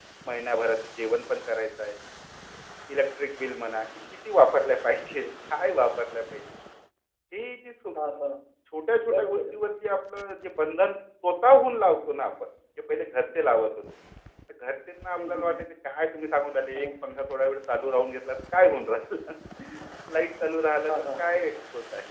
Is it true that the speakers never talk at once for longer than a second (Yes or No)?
Yes